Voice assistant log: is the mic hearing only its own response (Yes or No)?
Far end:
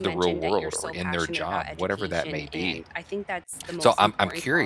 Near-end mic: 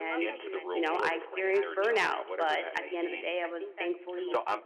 No